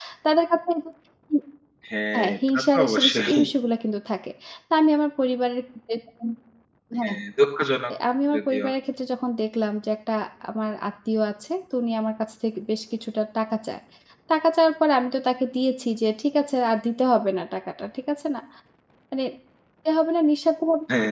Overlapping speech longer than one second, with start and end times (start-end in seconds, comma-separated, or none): 2.1-3.4